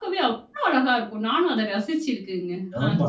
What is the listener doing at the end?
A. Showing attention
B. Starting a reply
B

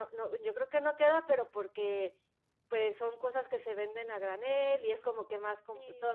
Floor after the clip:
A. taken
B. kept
B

